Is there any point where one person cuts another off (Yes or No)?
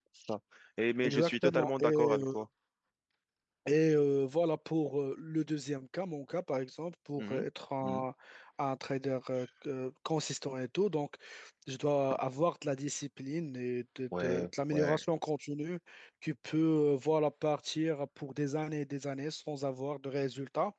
Yes